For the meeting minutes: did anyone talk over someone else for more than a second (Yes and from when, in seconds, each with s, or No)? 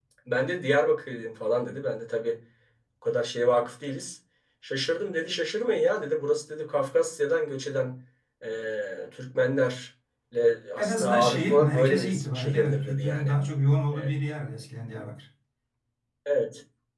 Yes, from 10.8 s